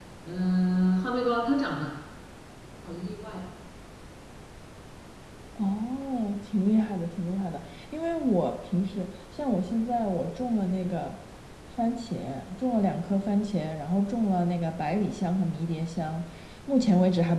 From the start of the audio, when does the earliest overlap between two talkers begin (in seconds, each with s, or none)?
none